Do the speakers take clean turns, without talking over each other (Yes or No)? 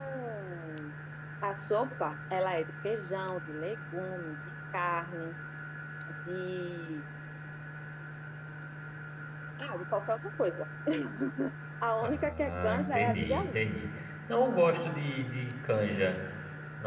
No